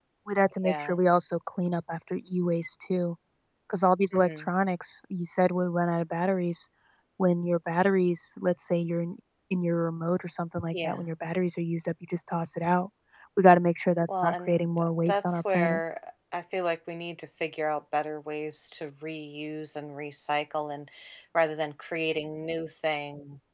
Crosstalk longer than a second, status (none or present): present